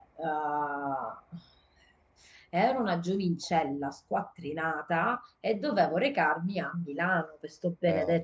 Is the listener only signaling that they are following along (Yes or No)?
Yes